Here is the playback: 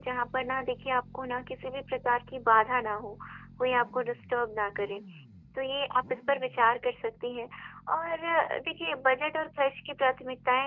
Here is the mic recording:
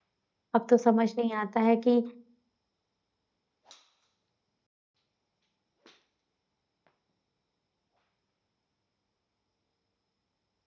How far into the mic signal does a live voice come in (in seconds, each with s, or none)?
0.5 s